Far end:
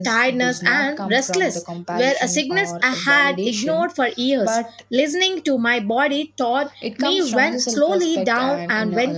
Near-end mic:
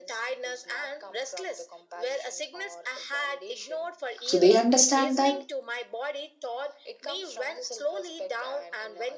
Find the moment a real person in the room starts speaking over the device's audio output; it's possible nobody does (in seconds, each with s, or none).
4.2 s